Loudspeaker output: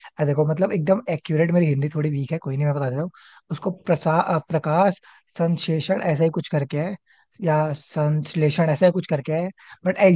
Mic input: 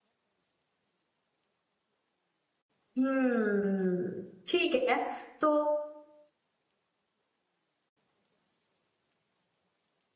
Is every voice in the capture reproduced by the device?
No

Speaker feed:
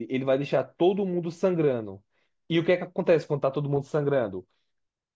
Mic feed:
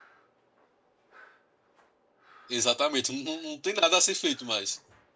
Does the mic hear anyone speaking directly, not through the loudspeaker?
Yes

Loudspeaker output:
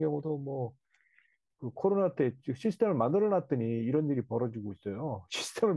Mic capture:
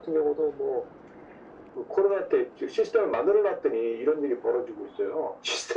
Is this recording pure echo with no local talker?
Yes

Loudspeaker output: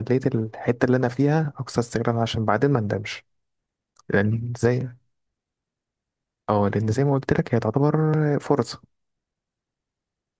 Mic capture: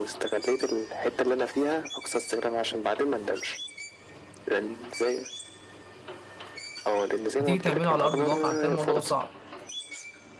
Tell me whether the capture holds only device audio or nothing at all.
No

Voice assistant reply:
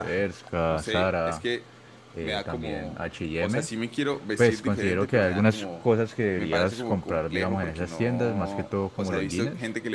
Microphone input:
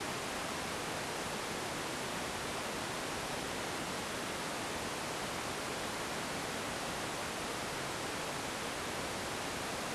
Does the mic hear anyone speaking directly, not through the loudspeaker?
No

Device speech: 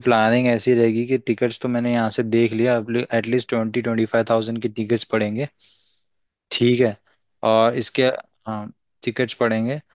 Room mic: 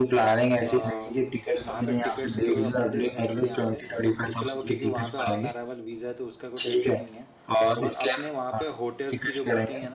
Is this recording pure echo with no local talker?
No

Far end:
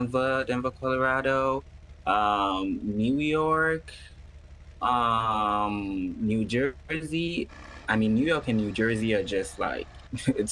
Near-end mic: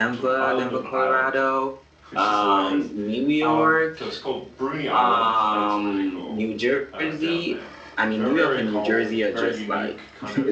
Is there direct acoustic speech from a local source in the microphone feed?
Yes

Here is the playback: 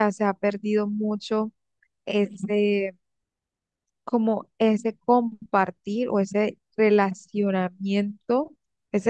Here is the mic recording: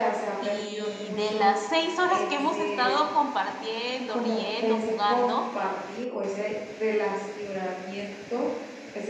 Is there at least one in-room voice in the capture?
Yes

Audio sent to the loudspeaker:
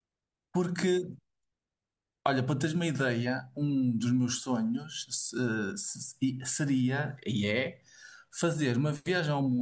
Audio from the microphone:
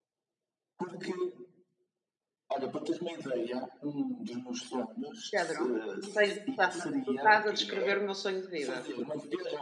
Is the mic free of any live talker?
No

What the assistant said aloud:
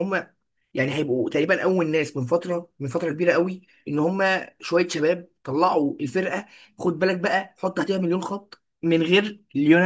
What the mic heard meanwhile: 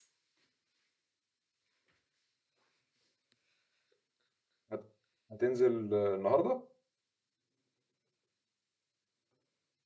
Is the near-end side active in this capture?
Yes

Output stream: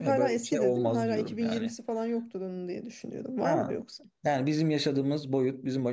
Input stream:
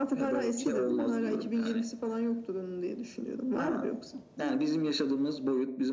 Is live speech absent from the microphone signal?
Yes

